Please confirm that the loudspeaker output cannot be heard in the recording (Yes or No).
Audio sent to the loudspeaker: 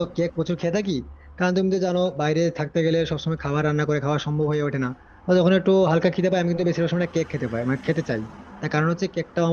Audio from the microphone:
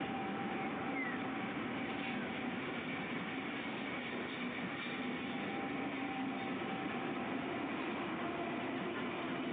Yes